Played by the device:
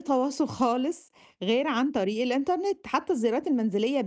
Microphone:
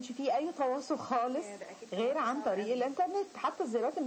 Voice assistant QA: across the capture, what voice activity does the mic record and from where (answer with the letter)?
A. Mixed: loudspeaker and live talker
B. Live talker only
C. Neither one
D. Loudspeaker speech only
A